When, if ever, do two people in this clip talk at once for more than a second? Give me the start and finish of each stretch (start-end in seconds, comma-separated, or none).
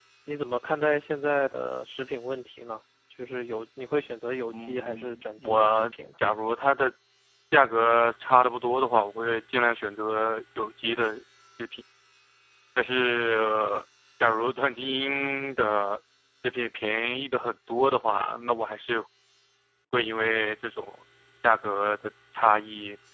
4.5-5.9